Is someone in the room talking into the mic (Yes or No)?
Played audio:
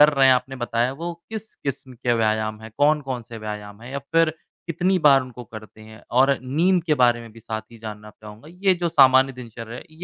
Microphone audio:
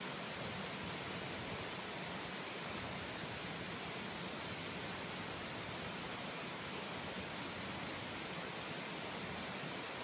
No